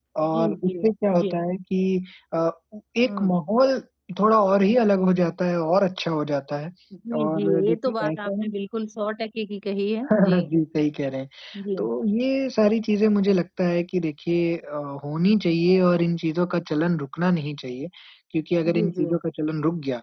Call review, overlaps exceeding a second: present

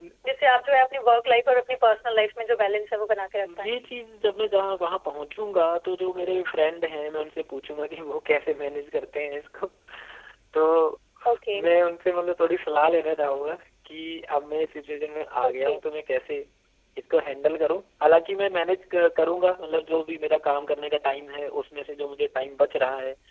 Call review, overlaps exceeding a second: none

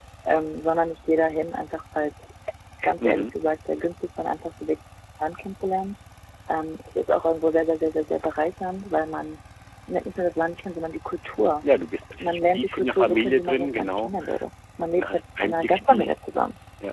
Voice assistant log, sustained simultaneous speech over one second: present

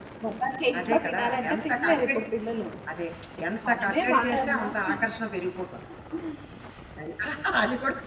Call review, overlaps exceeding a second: present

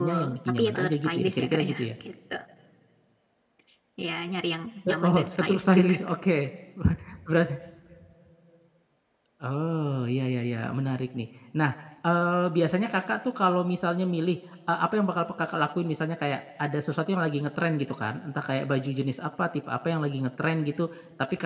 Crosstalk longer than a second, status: present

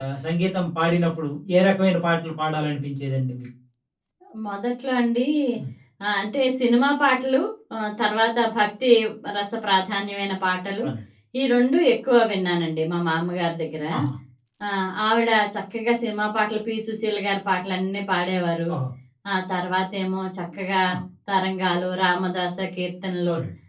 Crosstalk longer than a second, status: none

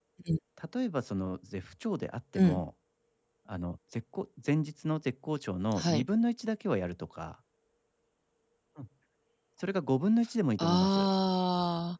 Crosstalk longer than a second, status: none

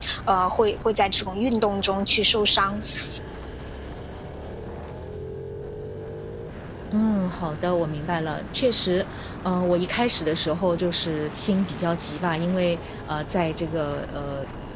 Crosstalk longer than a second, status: none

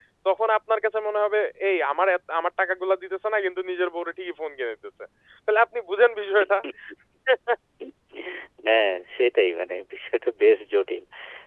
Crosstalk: none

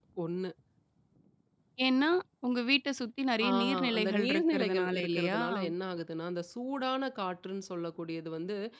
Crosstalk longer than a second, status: present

